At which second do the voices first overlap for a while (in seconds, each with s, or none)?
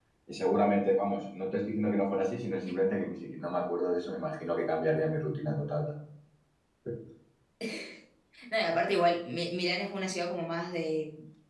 none